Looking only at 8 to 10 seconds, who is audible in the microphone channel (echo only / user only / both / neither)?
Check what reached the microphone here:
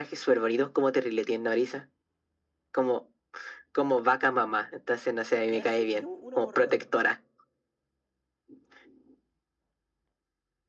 neither